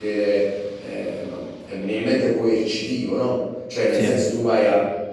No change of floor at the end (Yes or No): Yes